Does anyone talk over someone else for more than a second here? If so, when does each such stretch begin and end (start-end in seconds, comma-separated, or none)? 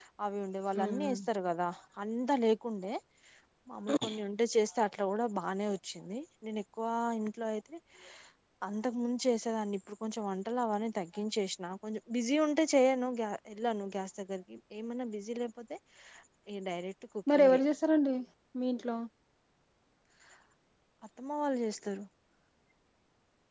none